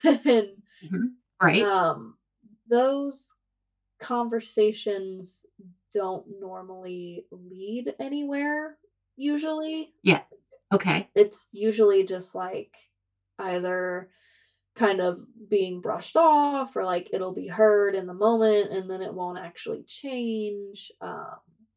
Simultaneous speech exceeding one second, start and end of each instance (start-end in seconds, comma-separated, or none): none